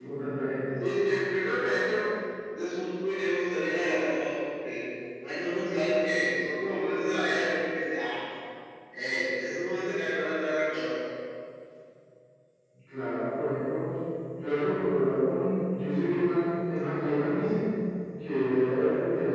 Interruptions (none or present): none